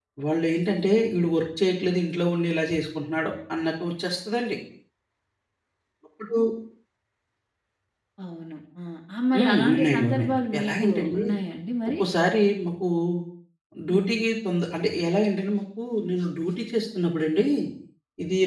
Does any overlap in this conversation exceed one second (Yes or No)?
Yes